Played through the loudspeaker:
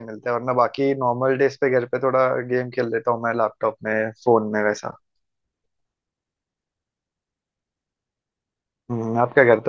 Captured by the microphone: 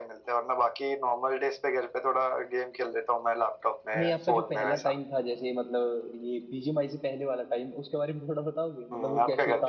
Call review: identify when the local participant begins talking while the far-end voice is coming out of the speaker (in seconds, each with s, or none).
4.0 s